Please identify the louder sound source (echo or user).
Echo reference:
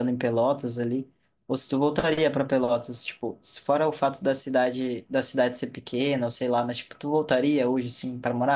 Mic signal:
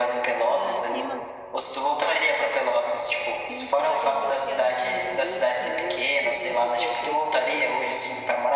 echo